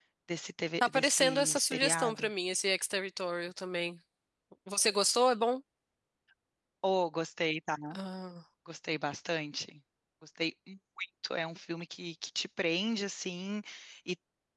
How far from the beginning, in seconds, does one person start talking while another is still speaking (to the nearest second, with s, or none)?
1 s